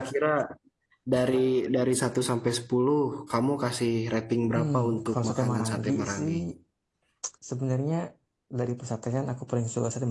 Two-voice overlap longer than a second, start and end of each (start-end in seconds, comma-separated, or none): 4.5-6.3